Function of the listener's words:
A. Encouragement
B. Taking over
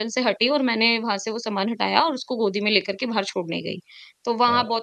A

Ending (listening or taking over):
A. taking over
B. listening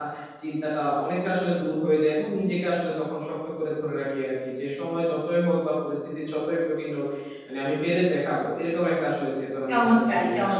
A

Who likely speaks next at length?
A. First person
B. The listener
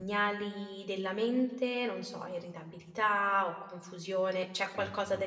A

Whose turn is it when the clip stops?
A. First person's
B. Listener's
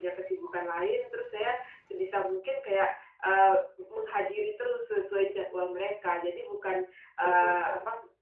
A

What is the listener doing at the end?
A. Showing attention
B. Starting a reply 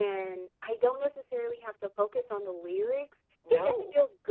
A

